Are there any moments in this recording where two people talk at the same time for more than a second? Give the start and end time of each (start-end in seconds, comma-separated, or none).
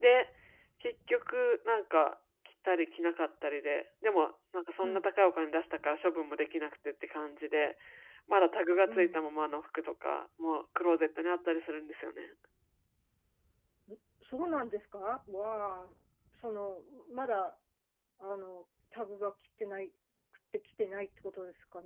none